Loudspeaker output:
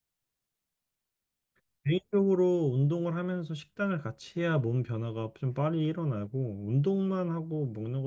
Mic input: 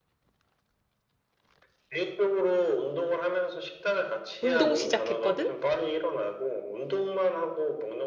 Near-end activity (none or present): present